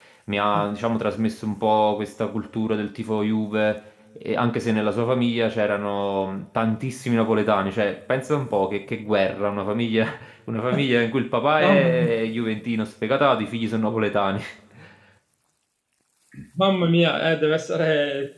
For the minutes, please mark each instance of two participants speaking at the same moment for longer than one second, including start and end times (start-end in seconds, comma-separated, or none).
none